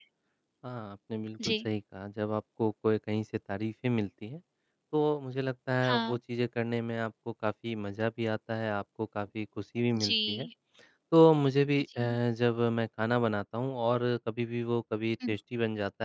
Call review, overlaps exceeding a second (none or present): none